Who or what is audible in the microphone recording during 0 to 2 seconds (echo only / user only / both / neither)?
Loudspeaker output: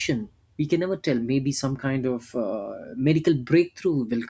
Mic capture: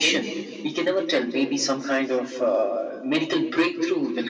echo only